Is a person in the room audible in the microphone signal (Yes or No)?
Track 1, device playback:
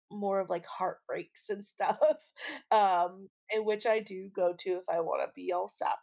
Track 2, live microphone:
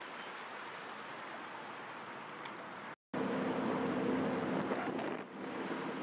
No